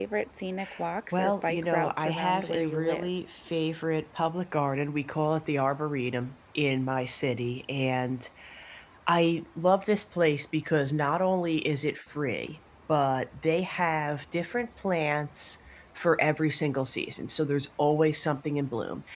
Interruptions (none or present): present